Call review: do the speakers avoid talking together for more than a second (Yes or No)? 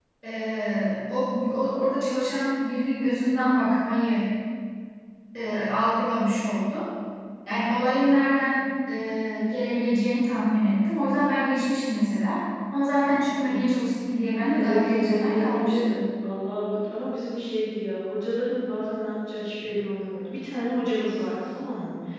No